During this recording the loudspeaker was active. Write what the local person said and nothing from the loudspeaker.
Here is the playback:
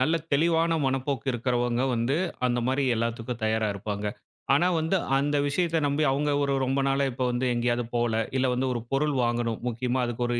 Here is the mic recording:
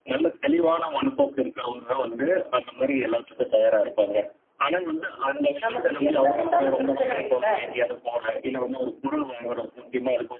நமக்கு என்ன வந்தாலும் பிரச்சனை இல்ல.

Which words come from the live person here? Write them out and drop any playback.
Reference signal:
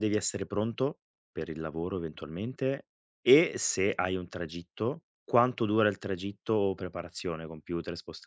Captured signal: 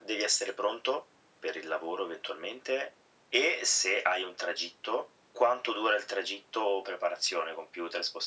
none

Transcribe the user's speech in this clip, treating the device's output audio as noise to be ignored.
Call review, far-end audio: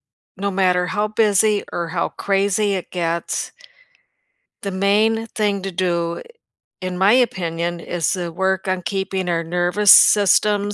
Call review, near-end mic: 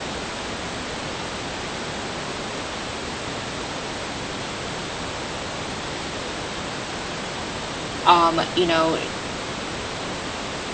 um, you know,

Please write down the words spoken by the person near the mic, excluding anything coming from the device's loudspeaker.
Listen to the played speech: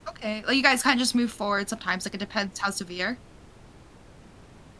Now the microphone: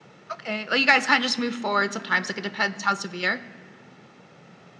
none

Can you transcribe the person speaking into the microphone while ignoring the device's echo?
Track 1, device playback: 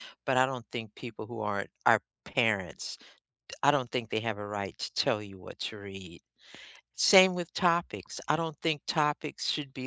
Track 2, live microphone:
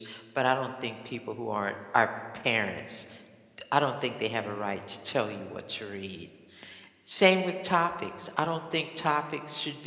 none

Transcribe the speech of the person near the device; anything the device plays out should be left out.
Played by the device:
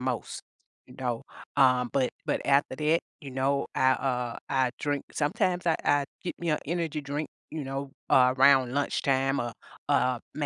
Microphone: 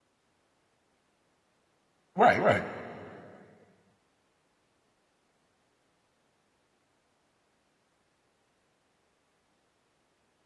Right, right.

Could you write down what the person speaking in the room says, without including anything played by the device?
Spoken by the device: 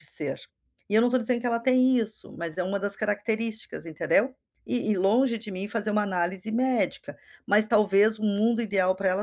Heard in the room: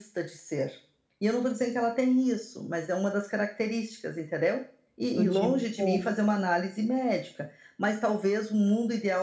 do tipo,

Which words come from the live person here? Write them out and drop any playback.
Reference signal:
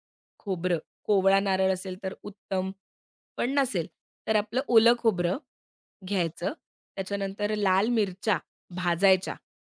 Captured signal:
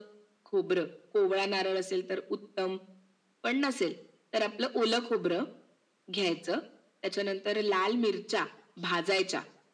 none

